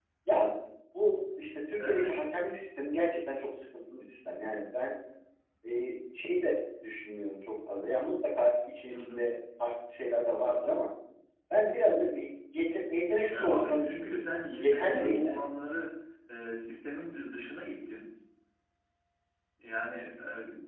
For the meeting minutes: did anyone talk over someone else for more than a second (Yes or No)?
Yes